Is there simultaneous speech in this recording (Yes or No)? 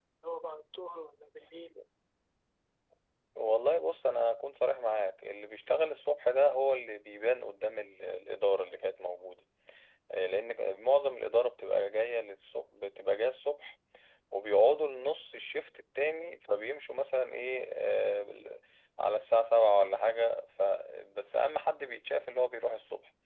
No